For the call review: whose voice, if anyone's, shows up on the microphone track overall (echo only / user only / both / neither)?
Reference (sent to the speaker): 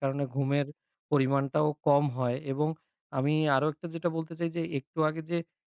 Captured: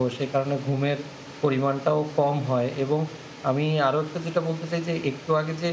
echo only